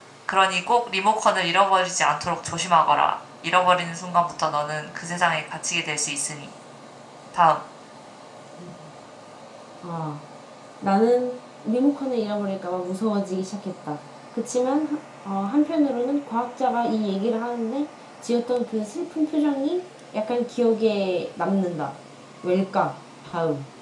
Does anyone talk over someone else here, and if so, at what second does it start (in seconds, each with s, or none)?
none